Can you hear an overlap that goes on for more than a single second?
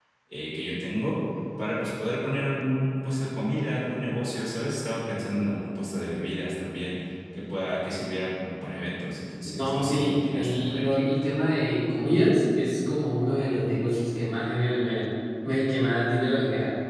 Yes, from 9.6 s

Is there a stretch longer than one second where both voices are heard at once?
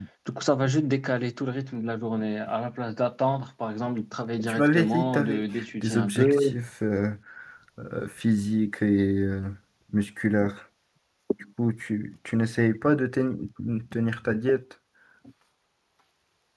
Yes, from 4.4 s

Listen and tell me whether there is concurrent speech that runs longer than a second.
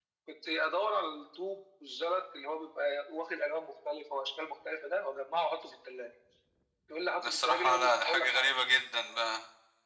Yes, from 7.2 s

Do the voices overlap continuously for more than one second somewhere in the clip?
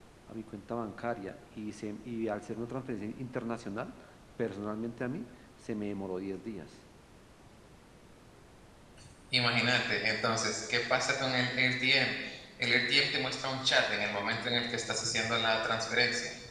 No

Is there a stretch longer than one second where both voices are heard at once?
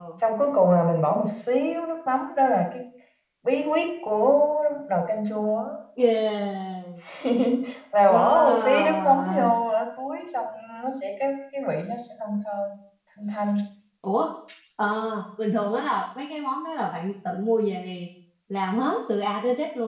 Yes, from 8.1 s

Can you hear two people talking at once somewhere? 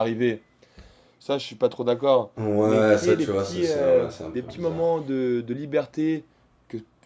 Yes, from 2.6 s

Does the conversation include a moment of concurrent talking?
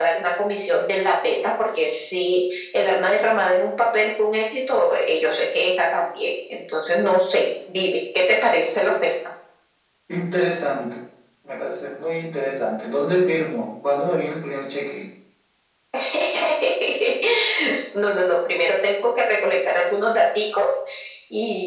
No

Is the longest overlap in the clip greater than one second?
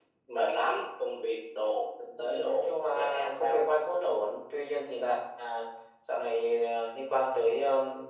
Yes, from 2.2 s

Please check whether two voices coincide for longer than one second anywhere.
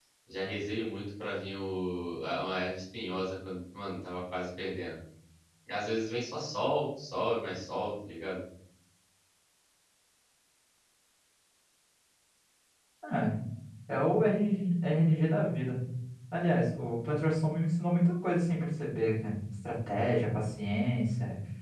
No

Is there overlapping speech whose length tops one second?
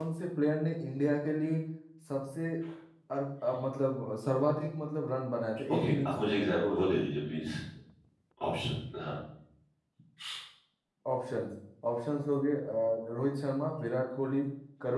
Yes, from 5.7 s

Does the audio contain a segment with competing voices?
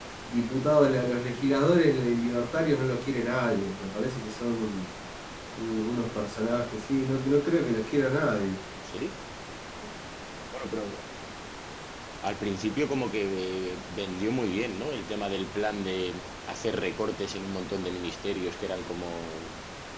No

